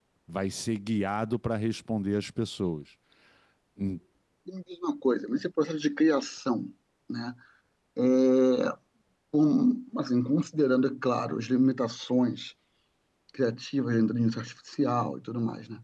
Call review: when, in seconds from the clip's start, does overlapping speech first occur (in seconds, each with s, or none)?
none